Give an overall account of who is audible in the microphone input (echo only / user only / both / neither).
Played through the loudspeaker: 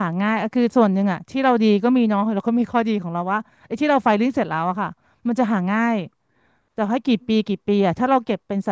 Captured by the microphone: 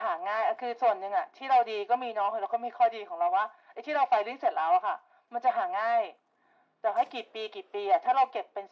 echo only